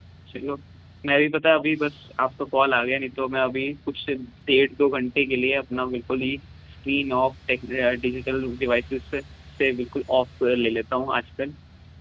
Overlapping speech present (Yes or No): No